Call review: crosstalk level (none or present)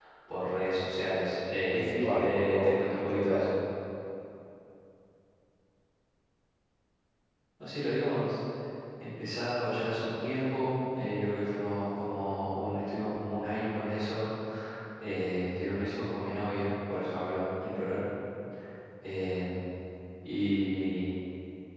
present